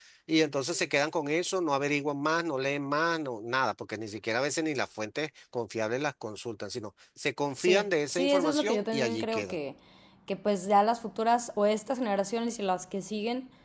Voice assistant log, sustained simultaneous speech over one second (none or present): present